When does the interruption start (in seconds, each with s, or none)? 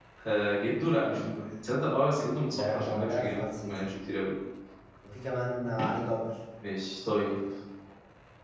2.5 s